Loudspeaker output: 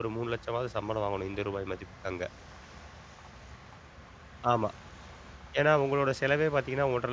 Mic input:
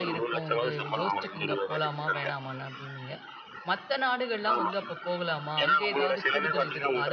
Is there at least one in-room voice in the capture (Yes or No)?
Yes